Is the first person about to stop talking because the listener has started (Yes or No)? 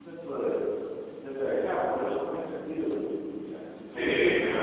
Yes